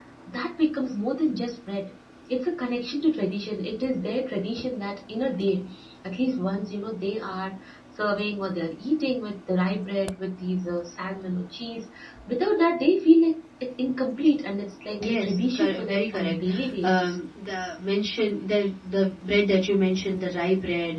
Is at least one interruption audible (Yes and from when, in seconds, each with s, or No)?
Yes, from 15.0 s